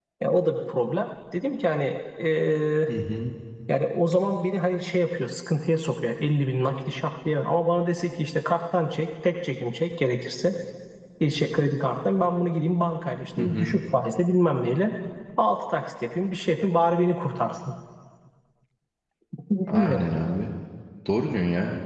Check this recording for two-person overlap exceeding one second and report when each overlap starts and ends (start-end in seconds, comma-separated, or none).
none